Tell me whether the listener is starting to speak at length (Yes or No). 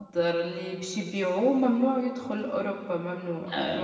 Yes